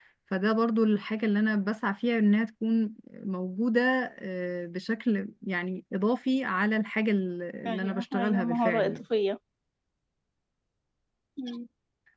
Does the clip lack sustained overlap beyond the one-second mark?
No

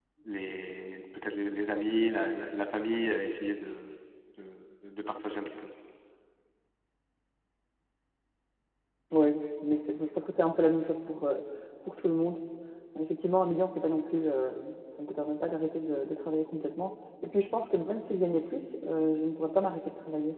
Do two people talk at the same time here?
No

